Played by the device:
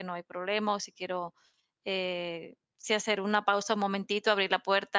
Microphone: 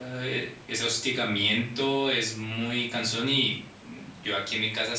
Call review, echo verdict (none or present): none